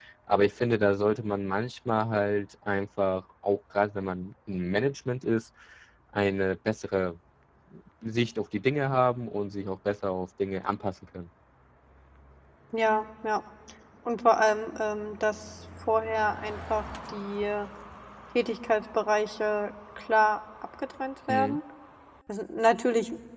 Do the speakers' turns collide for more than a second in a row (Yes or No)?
No